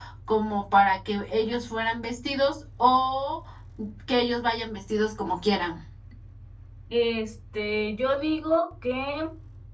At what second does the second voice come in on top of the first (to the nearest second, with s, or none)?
none